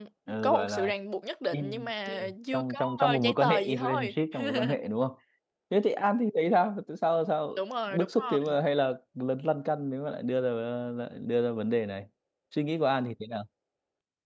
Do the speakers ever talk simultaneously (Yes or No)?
Yes